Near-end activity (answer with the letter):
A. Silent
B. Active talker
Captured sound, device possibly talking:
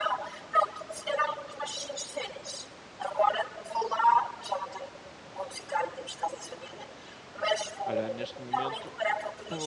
B